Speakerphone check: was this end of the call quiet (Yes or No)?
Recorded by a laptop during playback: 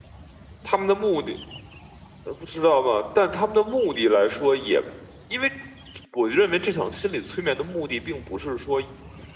No